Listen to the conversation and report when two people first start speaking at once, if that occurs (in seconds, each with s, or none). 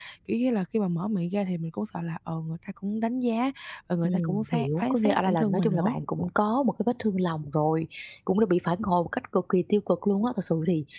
4.0 s